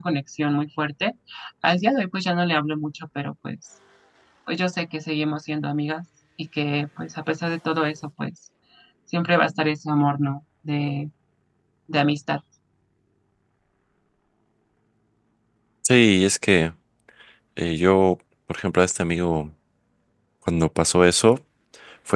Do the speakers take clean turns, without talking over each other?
Yes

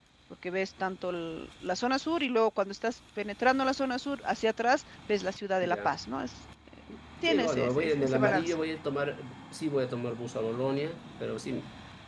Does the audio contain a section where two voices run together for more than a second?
Yes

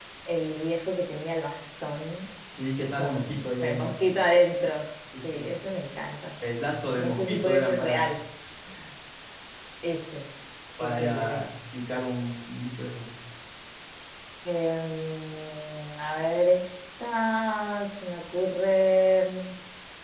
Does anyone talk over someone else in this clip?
Yes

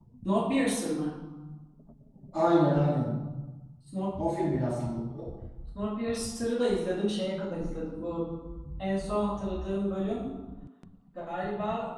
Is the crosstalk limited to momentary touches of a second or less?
Yes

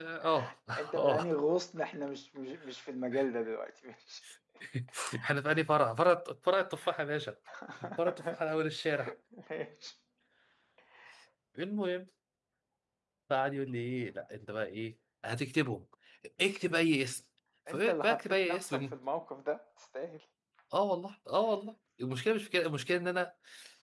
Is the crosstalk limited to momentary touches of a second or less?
No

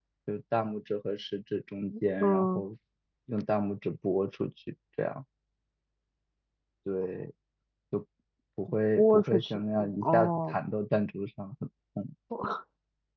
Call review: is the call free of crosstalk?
No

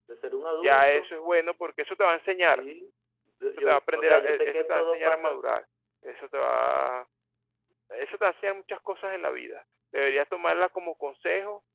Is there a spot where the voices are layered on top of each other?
Yes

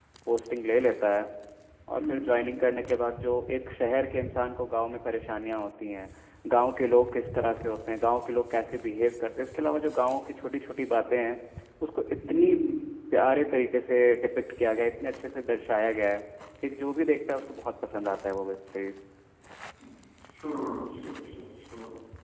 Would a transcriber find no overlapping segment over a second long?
Yes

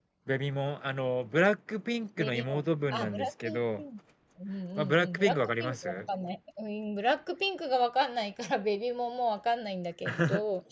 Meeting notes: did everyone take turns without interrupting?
No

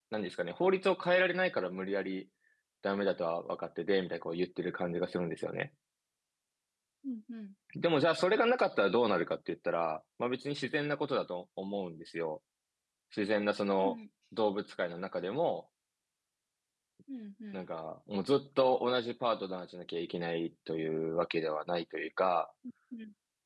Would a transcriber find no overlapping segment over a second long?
Yes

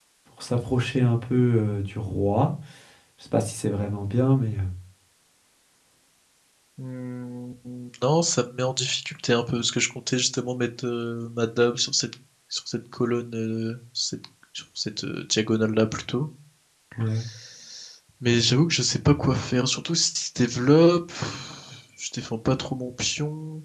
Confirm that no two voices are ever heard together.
Yes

